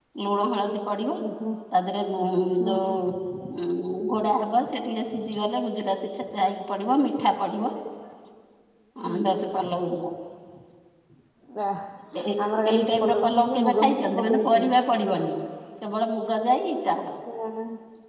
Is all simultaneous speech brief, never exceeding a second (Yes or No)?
No